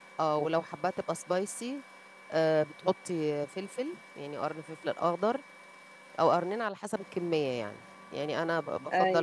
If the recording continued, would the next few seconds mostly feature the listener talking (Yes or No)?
No